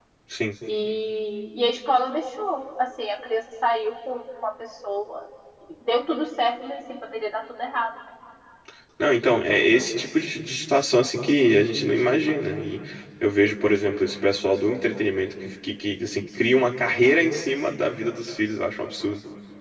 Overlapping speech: No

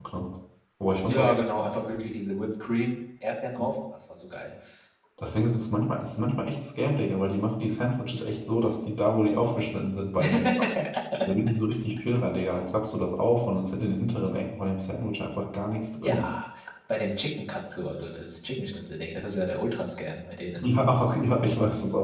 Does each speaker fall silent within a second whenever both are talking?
Yes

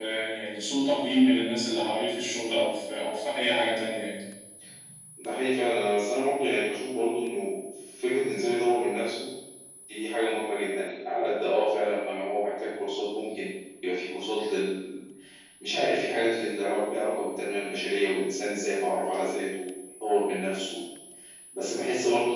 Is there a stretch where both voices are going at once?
No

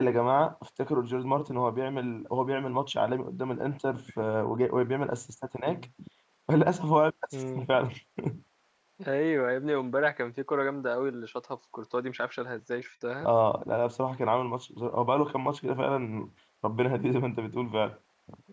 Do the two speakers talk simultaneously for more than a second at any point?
No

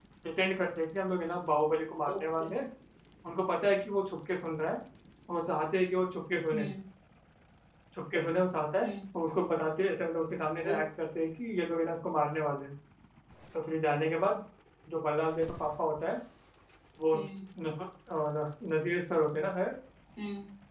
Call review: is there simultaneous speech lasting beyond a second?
No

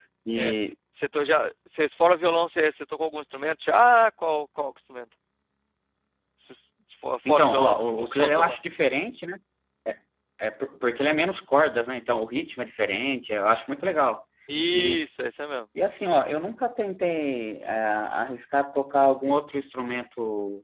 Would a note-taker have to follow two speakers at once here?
Yes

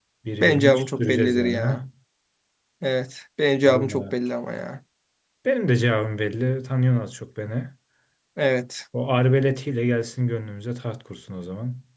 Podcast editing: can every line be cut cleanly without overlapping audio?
No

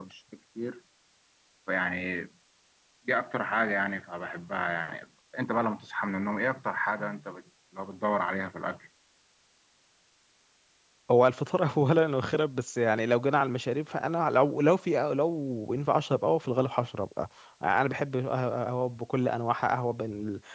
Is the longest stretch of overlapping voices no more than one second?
Yes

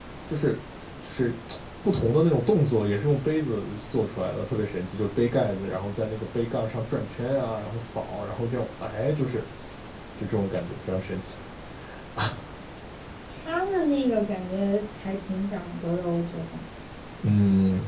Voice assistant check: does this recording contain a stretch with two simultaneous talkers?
No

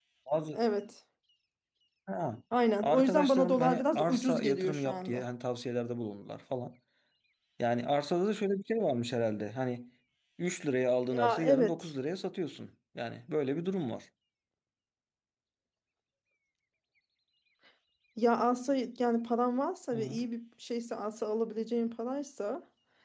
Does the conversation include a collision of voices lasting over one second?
Yes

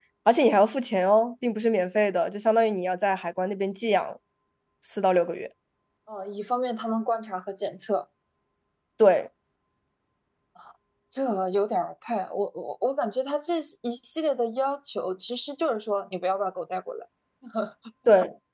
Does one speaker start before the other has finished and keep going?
No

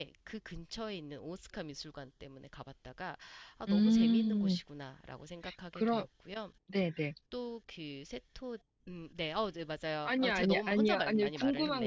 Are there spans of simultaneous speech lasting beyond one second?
Yes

